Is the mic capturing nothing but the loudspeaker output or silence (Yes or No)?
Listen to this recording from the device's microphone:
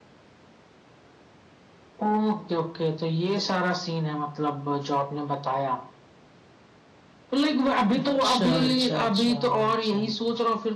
No